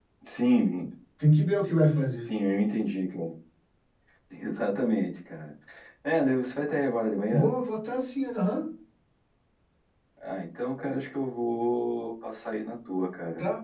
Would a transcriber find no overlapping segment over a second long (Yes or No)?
Yes